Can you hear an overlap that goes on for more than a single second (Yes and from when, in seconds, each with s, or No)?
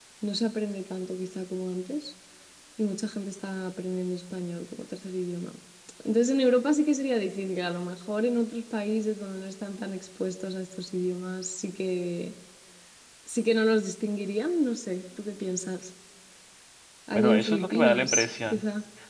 Yes, from 17.2 s